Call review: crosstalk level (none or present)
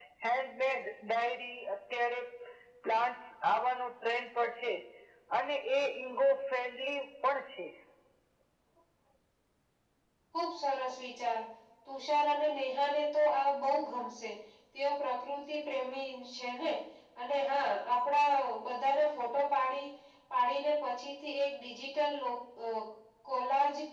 none